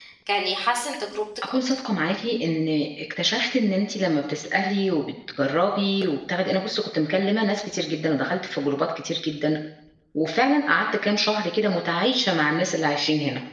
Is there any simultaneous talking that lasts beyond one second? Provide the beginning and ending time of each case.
none

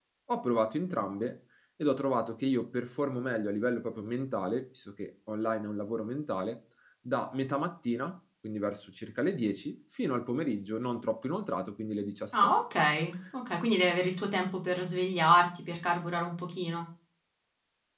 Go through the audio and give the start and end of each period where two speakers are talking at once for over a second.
none

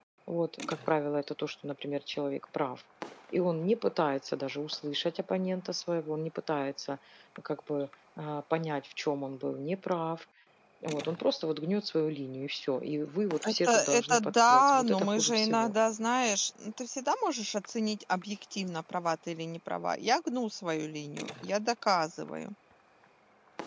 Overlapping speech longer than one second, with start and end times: 13.5-15.7

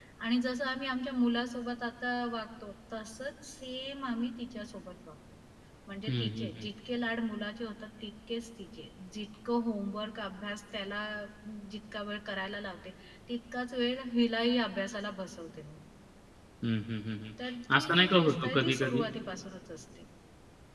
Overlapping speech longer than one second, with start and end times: 17.8-19.0

